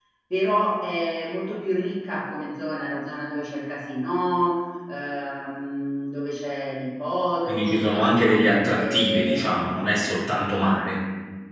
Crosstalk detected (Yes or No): Yes